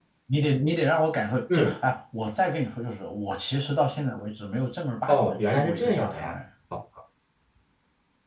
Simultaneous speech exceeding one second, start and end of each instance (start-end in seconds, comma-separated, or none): 5.1-6.3